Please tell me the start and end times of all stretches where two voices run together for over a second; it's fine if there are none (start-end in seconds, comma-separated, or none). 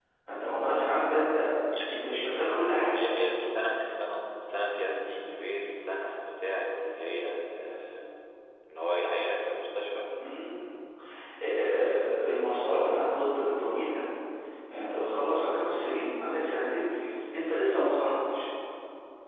none